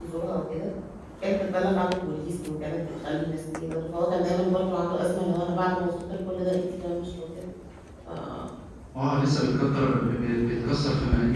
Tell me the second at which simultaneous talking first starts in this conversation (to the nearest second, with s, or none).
none